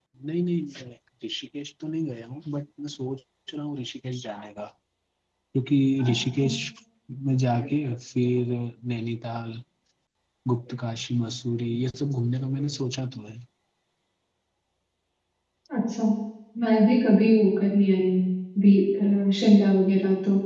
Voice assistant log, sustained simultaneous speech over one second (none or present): none